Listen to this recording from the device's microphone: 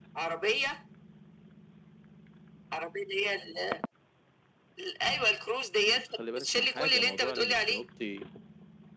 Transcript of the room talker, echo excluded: بس خلي بالك من حاجه موضوع انك تنطي

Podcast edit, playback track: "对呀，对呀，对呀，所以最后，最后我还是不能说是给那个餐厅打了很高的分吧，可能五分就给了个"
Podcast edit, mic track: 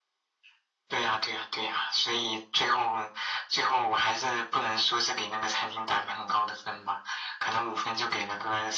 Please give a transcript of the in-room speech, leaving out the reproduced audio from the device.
none

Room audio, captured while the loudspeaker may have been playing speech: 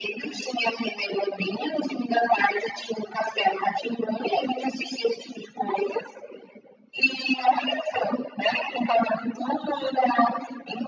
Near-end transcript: none

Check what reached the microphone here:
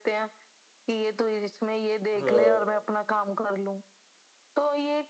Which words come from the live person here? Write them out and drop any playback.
हाँ

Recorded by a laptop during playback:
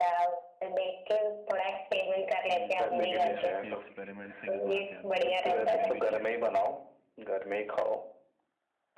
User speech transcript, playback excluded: हम्म, मुझे आपकी एक्सपेरिमेंट से एक बात याद आ गई एक बार मैंने भी किया था

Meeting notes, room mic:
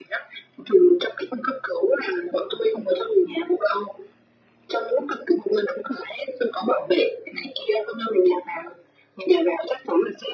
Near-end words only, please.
none

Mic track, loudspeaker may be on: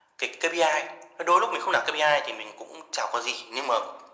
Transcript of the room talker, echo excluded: none

